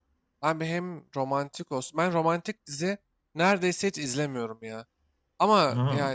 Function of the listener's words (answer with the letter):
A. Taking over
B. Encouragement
B